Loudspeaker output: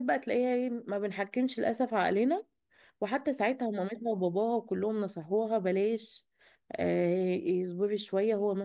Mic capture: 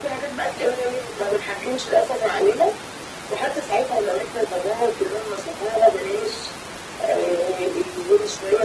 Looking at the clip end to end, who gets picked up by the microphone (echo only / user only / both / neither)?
echo only